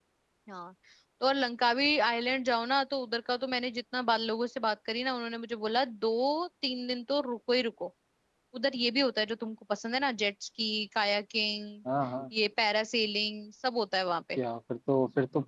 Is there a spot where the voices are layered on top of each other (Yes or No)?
No